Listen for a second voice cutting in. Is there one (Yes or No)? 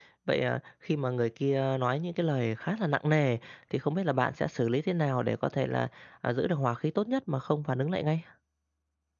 No